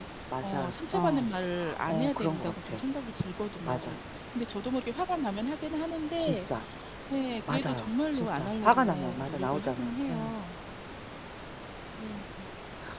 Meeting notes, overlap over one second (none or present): present